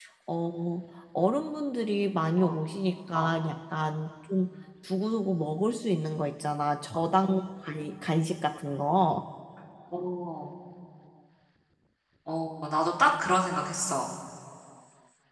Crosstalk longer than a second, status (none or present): none